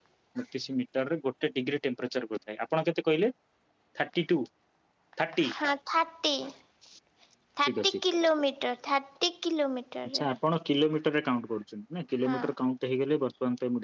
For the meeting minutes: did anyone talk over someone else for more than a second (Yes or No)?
No